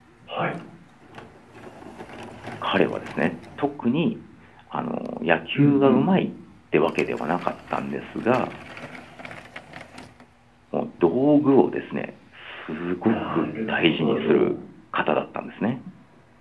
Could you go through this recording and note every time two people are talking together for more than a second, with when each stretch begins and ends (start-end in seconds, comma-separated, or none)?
13.0-14.6